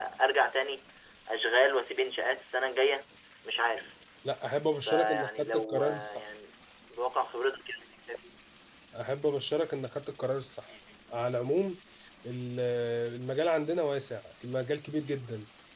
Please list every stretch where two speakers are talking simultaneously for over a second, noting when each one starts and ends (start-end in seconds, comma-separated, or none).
4.9-6.2